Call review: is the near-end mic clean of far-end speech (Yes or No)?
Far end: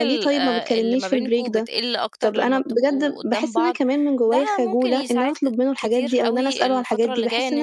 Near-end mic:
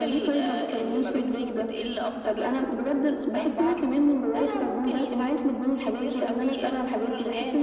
No